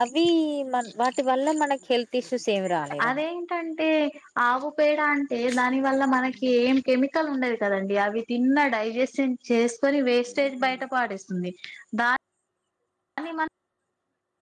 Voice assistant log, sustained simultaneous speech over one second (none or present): none